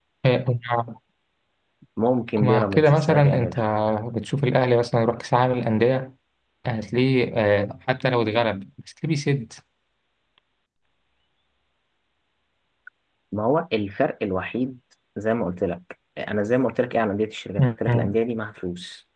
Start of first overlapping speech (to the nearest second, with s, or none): 2 s